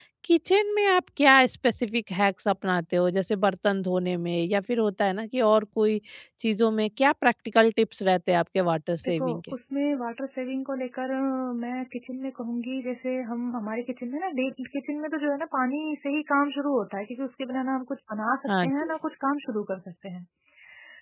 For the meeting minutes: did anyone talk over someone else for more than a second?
No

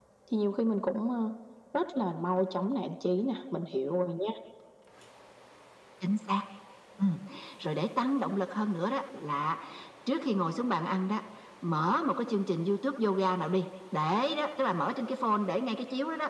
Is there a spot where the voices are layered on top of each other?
No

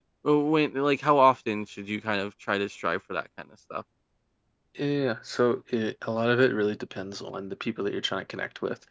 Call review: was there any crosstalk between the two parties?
No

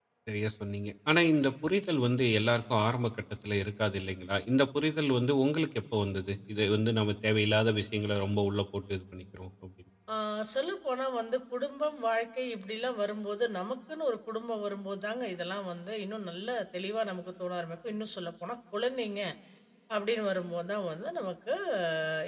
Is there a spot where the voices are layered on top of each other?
No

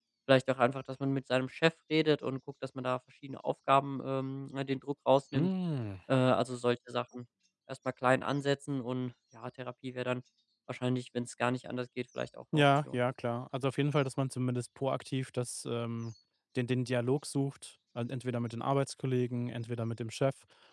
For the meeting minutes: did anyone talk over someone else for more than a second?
No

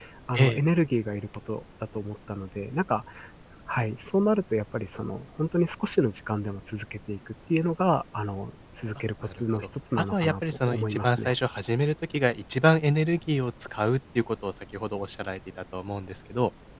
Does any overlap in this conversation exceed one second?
Yes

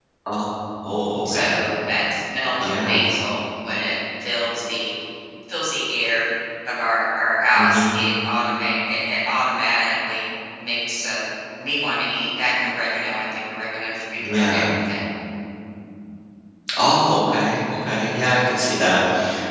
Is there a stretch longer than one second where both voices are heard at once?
No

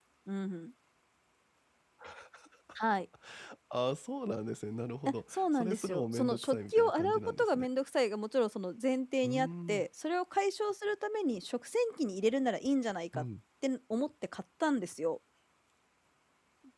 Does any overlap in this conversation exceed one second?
Yes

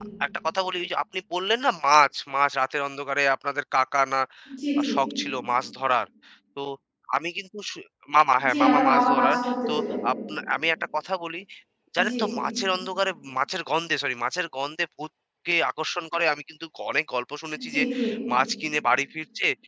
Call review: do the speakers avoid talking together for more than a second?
No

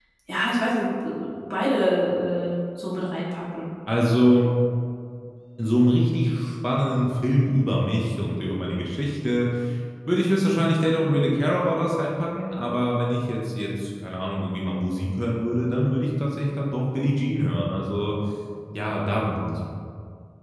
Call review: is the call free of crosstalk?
Yes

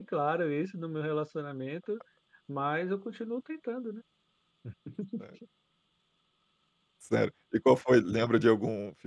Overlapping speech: No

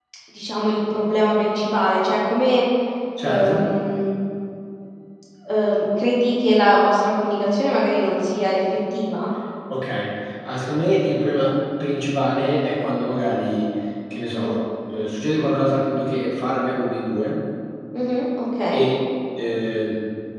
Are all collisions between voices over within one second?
Yes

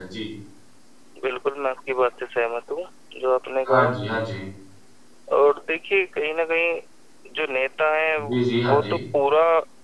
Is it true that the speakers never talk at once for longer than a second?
Yes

